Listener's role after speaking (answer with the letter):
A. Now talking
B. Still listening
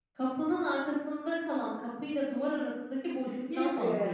A